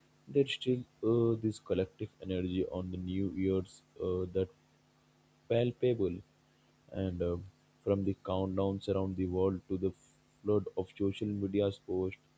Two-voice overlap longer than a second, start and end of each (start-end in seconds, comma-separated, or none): none